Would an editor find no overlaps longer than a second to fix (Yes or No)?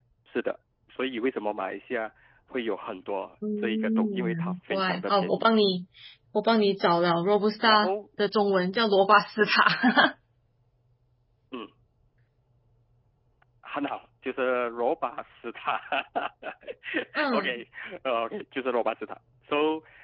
No